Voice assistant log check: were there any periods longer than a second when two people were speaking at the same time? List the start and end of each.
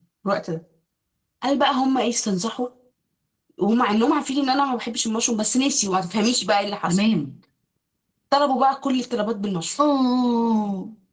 none

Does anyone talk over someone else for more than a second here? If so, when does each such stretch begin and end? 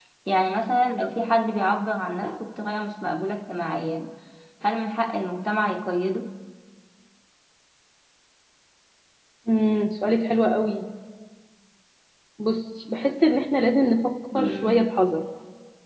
none

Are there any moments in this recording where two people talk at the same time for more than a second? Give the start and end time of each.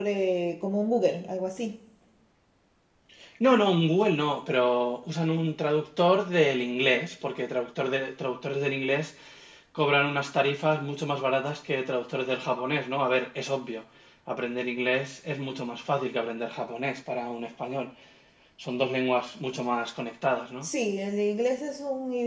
none

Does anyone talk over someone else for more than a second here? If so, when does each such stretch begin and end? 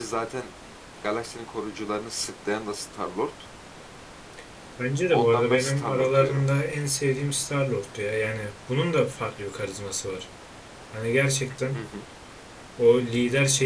5.1-6.4

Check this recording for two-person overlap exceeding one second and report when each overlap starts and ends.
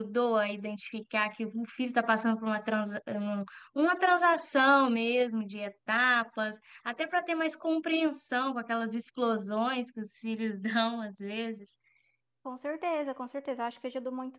none

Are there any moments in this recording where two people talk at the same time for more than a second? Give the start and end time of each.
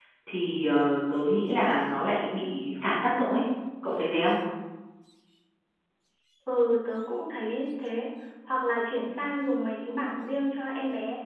none

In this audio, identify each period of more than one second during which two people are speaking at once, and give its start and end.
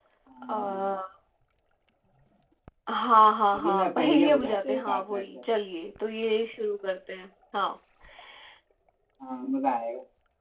3.5-5.4

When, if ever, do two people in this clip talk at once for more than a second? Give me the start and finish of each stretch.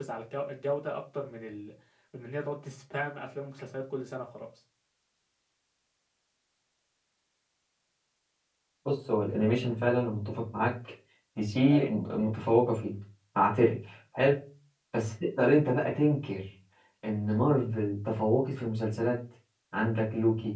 none

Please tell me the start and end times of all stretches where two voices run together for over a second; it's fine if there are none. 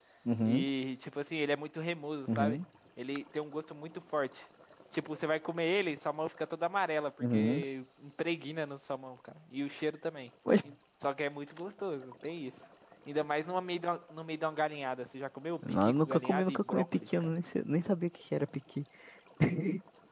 15.6-17.3

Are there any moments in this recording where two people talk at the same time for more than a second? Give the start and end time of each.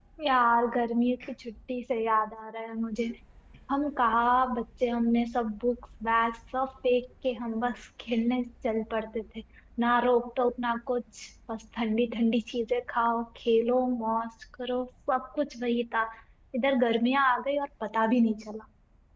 none

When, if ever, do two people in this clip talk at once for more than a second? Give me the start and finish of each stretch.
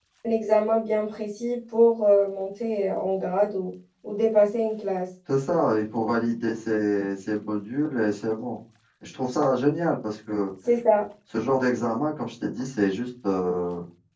none

